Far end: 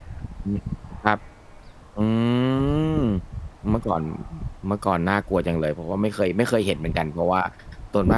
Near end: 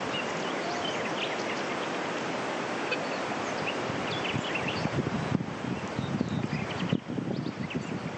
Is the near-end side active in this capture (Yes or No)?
No